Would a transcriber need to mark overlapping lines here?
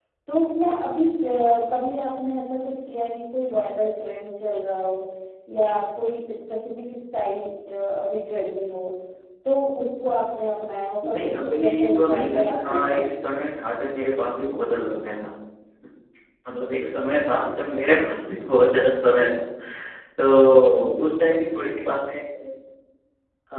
Yes, from 11.0 s

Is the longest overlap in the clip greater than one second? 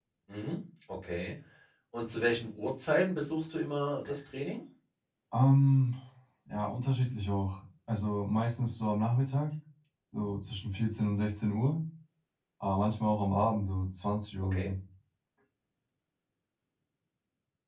No

